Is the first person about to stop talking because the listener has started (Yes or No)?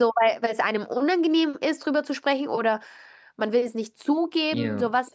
Yes